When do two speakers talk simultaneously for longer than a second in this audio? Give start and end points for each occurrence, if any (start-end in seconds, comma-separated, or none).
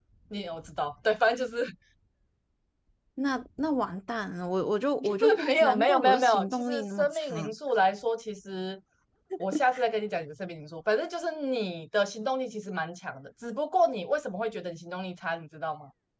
5.2-7.5